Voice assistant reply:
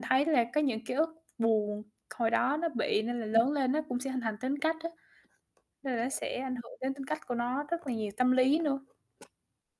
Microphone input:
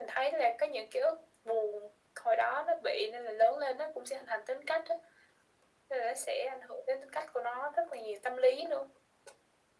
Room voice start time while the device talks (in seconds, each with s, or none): none